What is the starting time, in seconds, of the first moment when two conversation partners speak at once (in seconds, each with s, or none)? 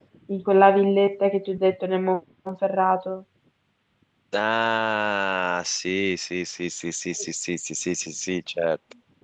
none